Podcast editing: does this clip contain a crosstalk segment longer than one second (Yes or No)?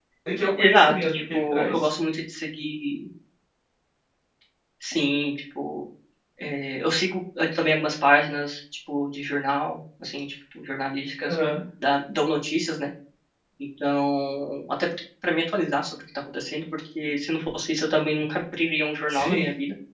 Yes